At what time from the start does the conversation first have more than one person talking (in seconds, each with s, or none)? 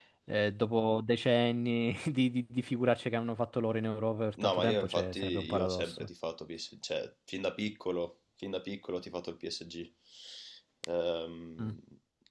4.4 s